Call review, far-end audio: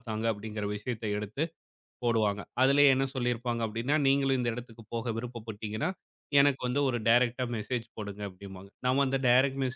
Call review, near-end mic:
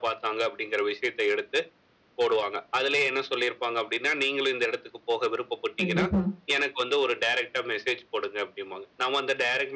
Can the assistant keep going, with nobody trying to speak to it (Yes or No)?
No